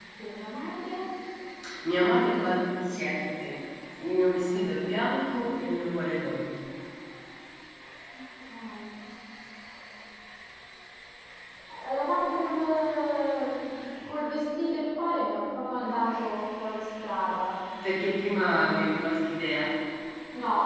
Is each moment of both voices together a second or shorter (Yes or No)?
Yes